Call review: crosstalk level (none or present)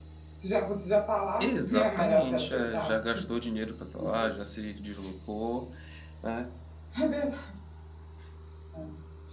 present